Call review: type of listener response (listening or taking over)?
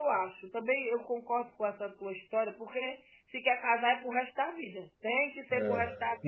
taking over